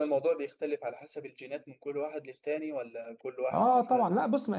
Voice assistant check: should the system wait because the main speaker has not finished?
No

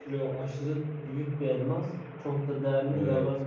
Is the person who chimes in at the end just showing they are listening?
Yes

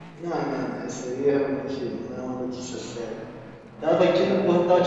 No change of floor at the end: Yes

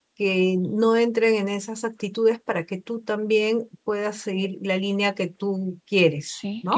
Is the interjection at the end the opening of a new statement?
Yes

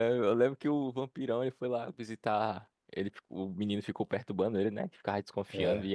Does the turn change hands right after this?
No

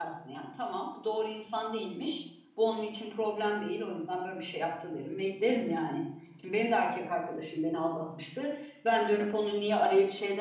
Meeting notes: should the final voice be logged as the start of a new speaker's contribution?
No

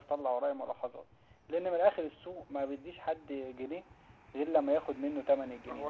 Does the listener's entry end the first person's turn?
Yes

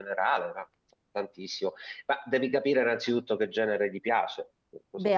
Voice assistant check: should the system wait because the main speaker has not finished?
No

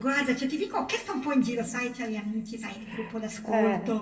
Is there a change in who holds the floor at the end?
No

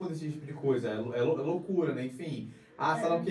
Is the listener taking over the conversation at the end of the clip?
No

